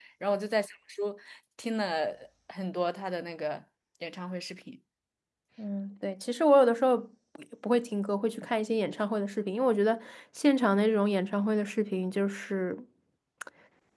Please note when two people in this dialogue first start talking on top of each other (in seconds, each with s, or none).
none